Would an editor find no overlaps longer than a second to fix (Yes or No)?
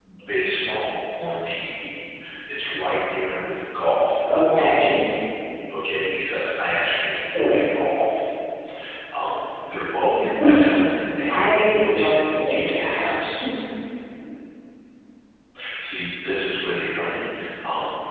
No